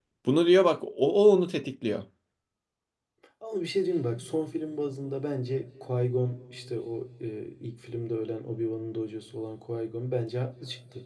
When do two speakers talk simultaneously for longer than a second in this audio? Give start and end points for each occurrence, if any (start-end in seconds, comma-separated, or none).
none